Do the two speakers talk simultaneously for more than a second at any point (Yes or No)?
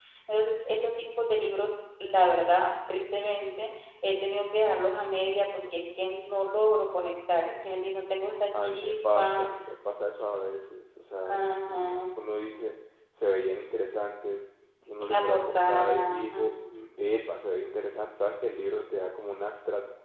Yes